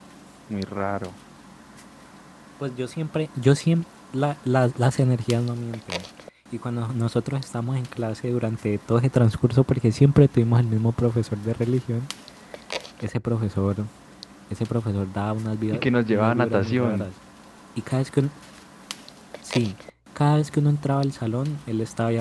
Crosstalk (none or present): present